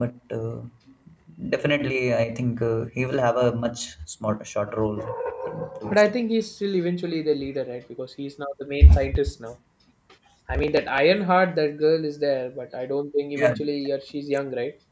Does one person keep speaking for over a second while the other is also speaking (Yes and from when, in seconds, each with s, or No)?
No